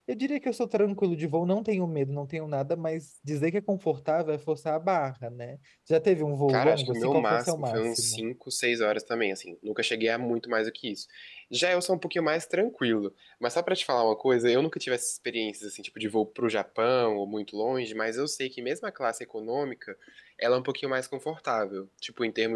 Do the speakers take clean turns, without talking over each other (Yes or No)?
No